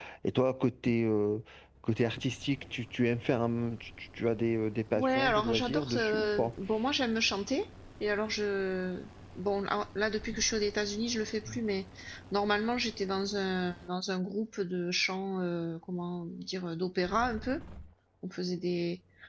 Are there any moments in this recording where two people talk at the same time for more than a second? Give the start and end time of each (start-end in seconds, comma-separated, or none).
5.0-6.5